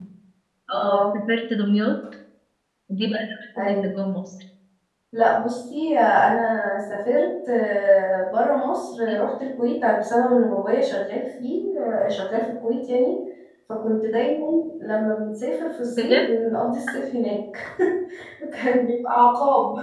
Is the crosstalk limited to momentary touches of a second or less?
Yes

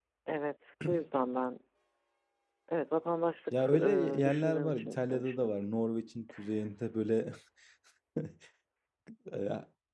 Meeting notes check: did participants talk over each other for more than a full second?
Yes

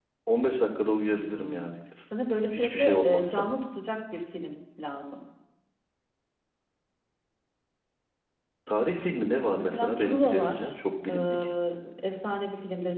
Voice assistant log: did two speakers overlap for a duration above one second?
Yes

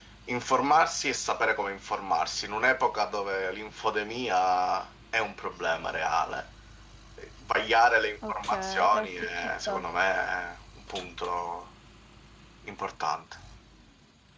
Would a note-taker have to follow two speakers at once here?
Yes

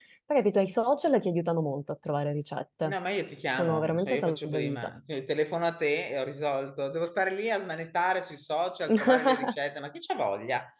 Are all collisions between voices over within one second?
No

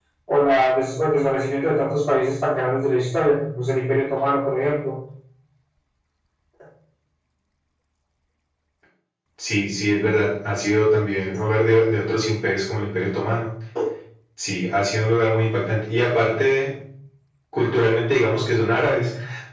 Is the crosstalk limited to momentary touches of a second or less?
Yes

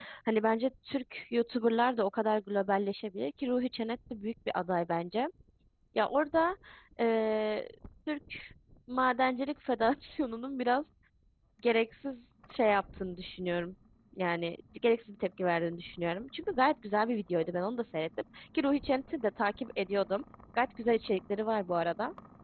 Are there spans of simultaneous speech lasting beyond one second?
No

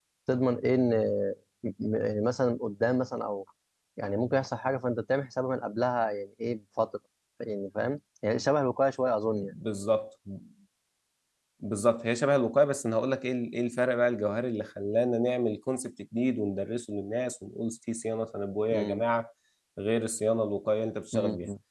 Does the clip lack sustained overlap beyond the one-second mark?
Yes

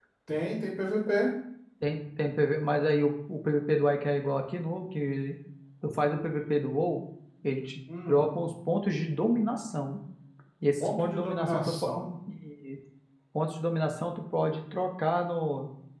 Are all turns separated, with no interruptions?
No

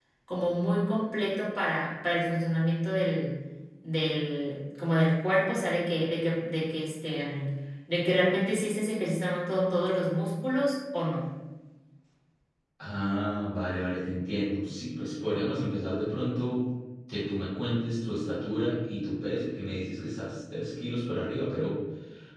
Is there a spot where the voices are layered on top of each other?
No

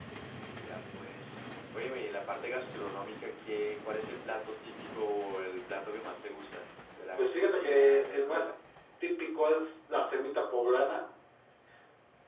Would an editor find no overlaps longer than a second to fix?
No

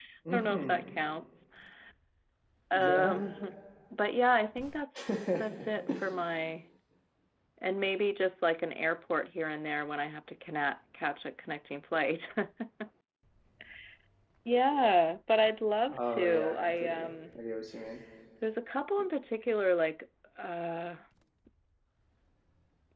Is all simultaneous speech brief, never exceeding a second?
No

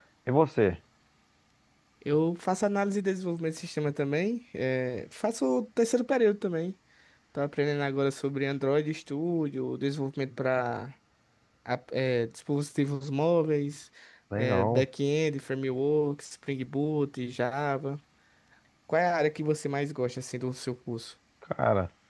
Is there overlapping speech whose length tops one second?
No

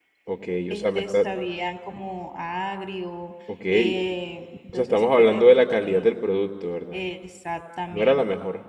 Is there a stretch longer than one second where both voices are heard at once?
Yes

